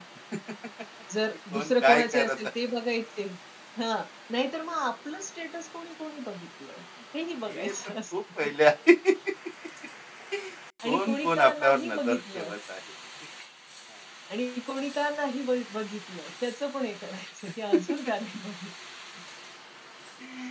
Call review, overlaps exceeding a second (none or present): present